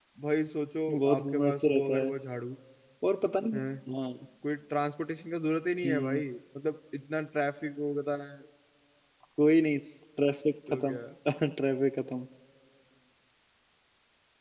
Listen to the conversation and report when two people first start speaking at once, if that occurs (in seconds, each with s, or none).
0.9 s